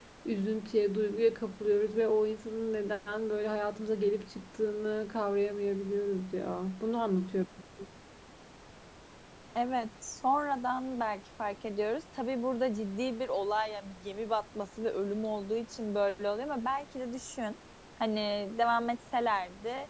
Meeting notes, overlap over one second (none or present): none